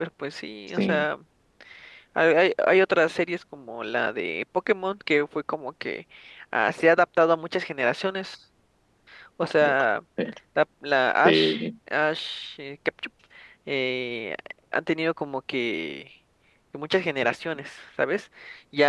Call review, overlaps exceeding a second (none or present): none